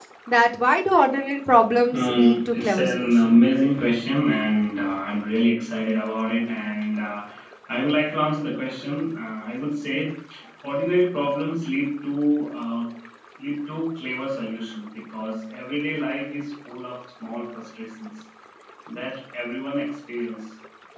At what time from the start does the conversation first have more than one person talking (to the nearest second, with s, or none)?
2 s